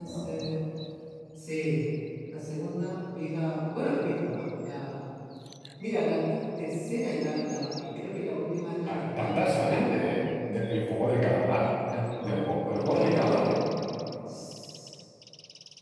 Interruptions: present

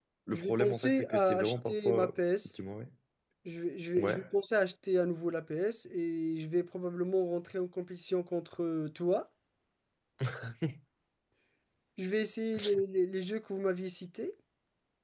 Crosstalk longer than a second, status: present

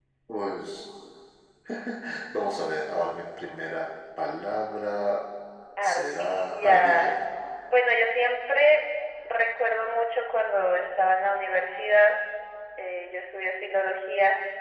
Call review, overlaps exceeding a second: present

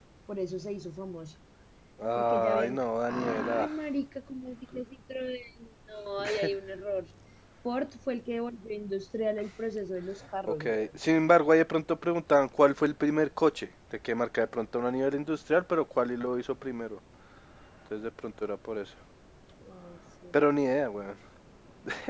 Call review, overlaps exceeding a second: present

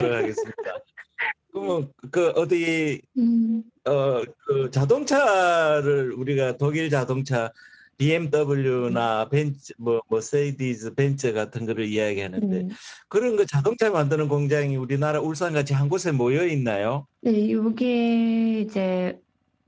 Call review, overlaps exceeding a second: none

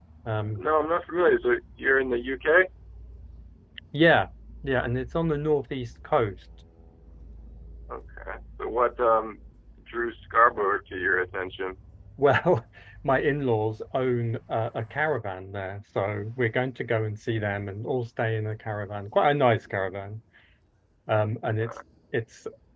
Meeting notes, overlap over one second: none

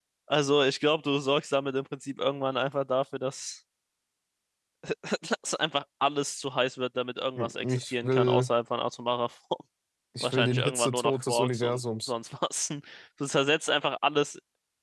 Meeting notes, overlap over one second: present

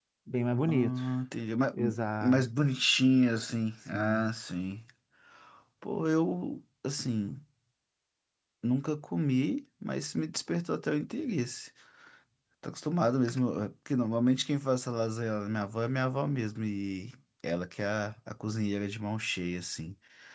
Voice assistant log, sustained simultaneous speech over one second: none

